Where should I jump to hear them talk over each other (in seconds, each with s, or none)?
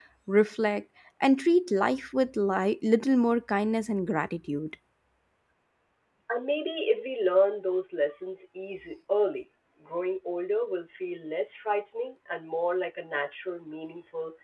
none